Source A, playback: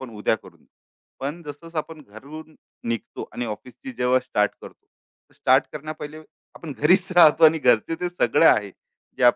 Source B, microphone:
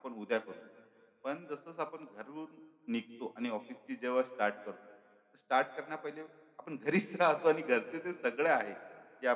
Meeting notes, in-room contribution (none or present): none